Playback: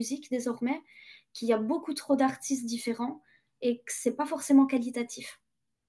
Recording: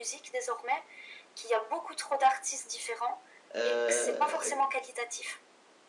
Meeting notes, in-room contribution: present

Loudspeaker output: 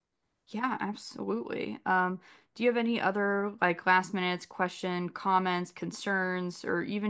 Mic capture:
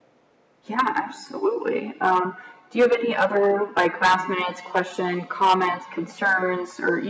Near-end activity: none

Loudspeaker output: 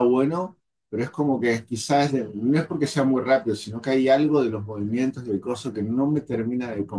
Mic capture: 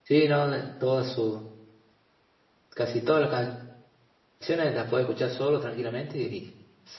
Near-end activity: present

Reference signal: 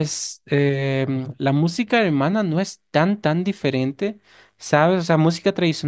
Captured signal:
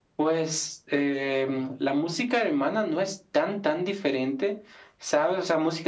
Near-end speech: none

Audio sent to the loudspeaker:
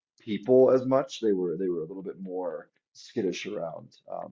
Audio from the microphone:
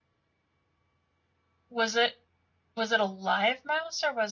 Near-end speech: present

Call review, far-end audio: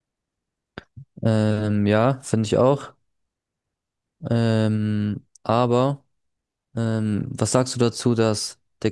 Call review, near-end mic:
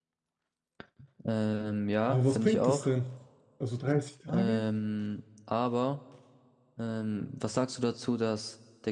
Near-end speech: present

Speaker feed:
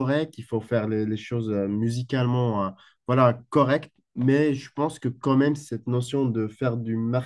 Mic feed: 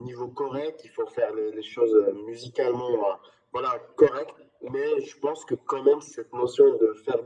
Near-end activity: none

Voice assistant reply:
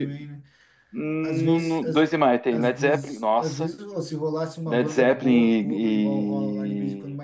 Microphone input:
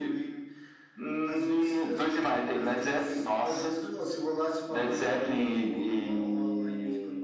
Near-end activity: none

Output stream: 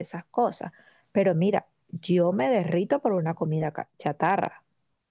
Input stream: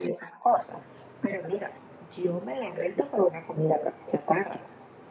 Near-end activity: none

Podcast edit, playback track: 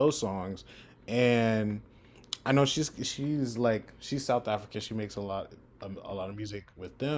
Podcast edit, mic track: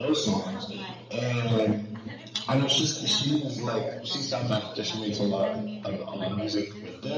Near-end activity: present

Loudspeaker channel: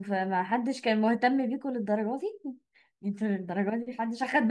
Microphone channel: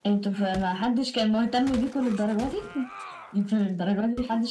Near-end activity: none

